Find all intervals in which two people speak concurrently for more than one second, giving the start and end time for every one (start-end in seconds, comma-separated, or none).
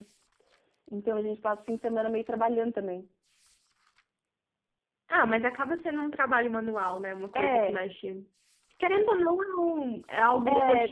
none